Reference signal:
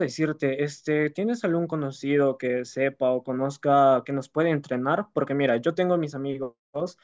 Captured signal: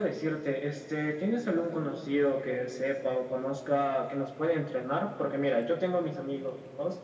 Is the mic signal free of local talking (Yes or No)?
Yes